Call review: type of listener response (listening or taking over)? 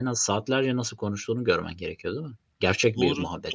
taking over